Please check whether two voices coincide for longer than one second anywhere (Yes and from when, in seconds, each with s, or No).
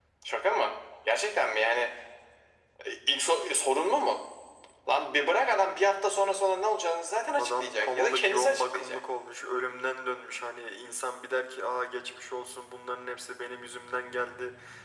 Yes, from 7.4 s